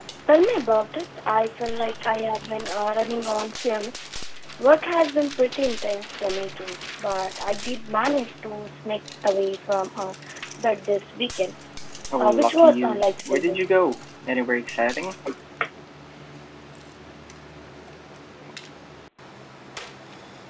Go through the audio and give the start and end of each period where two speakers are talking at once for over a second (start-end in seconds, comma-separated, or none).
12.2-13.6